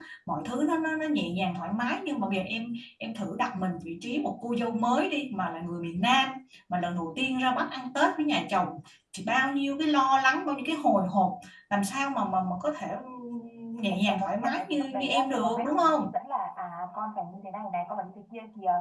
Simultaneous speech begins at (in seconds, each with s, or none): 13.9 s